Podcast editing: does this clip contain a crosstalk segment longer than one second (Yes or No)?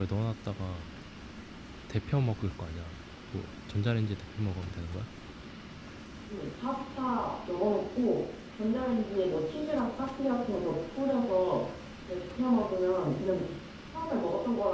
No